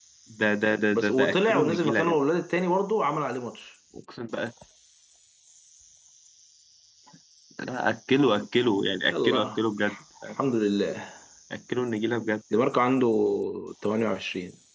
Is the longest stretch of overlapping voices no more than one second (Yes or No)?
No